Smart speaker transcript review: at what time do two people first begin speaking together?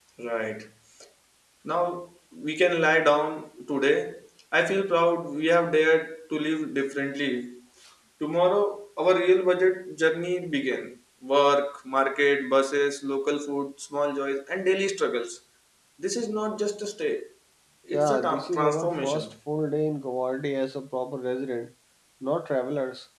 17.9 s

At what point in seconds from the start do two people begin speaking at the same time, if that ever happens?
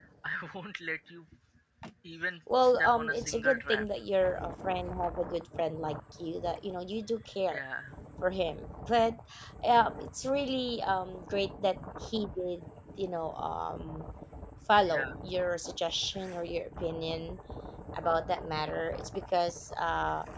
2.6 s

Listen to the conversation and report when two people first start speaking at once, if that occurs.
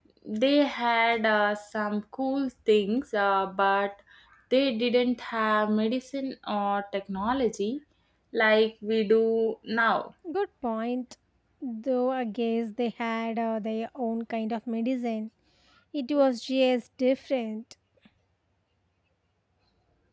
none

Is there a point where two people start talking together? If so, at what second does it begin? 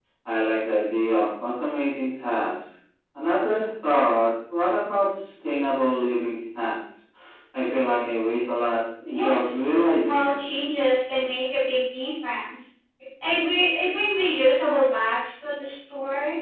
9.1 s

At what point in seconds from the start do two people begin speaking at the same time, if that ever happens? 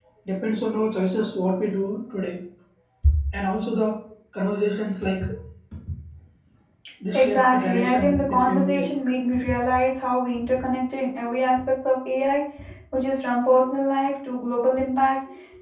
7.1 s

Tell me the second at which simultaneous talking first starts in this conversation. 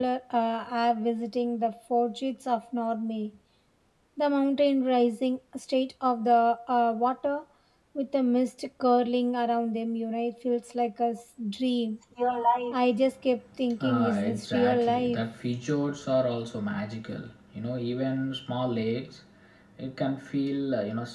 13.8 s

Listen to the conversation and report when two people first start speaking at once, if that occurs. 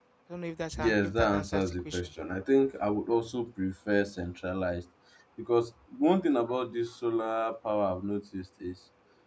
0.8 s

